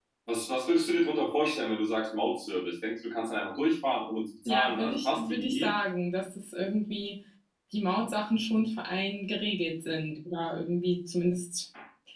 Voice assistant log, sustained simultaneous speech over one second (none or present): present